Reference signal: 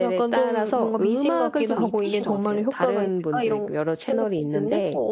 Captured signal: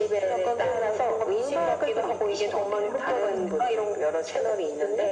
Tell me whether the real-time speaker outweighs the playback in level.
No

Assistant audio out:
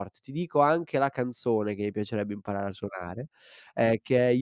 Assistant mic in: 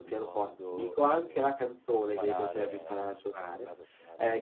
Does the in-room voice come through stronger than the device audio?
No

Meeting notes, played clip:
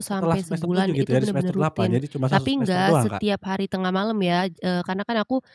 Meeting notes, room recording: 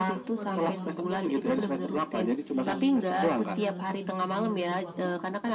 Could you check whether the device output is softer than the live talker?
No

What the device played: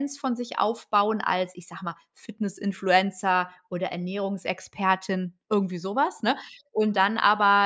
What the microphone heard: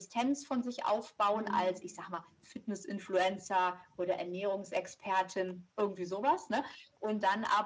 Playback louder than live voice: Yes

